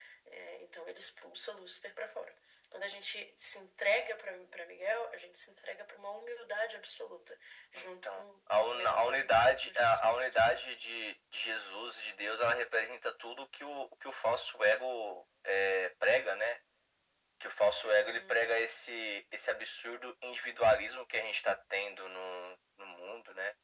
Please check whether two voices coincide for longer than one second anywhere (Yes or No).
Yes